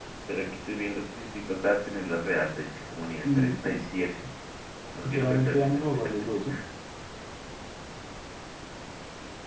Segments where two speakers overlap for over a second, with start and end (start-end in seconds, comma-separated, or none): 5.0-6.5